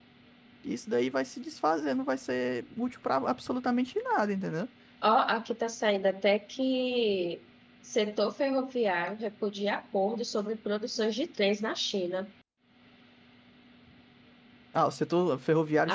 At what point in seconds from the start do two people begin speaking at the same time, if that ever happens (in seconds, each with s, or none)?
none